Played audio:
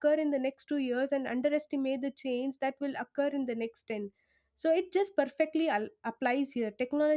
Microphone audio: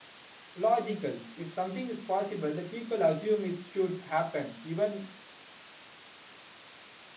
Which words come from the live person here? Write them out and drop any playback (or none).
logical. If something is possible, the people assume it should happen. Even